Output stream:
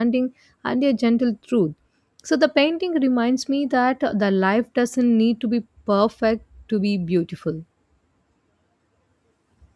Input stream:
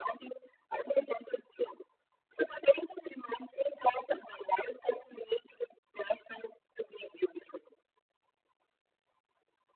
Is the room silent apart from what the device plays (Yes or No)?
Yes